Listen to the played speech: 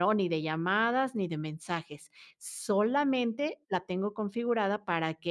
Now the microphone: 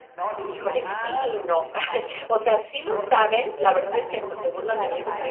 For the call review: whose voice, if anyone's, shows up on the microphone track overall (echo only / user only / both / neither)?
both